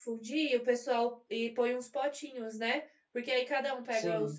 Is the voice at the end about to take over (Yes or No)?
No